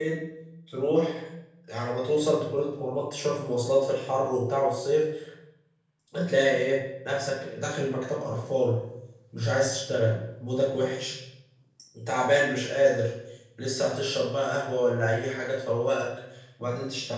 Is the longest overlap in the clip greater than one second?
No

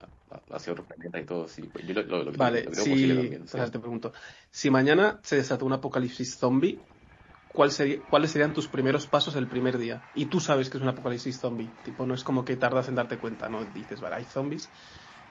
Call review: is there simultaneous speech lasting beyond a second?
Yes, from 2.4 s

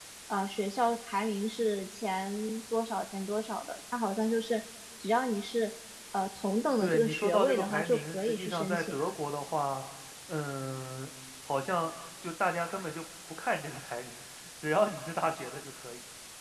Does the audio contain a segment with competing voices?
Yes, from 6.8 s

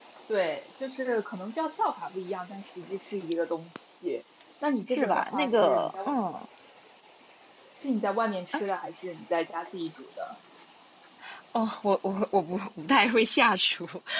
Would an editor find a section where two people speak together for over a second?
Yes, from 4.9 s

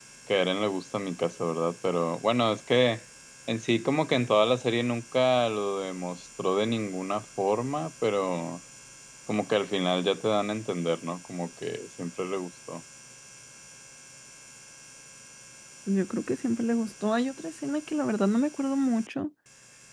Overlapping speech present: No

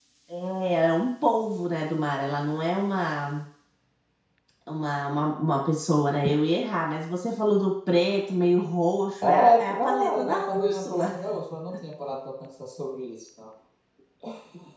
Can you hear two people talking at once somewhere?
Yes, from 9.2 s

